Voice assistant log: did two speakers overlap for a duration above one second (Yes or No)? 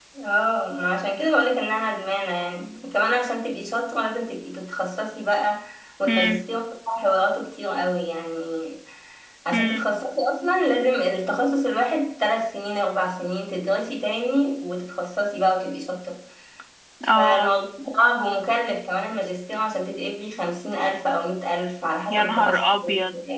No